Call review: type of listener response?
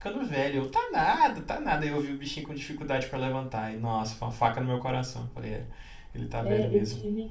taking over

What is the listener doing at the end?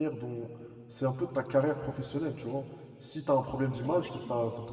listening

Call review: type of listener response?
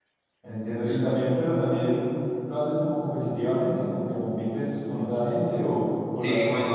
taking over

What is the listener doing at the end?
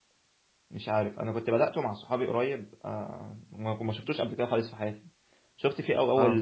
listening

